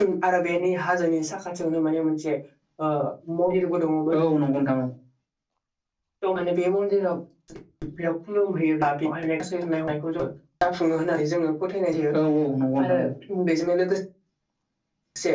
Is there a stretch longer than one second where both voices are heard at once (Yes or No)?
No